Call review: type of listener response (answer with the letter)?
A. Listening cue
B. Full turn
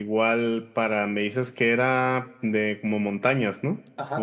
B